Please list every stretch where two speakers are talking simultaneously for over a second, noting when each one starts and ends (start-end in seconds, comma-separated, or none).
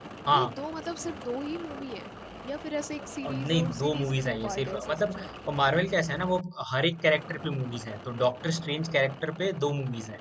3.3-5.3